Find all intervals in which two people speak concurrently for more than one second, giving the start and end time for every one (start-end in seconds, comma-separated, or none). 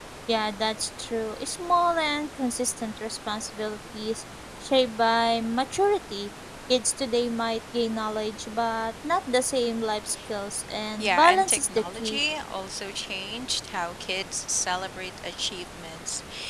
11.0-12.2